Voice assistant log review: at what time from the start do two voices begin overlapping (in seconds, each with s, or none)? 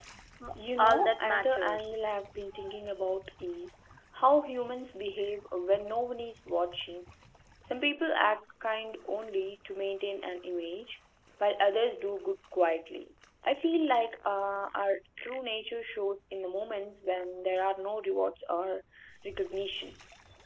0.8 s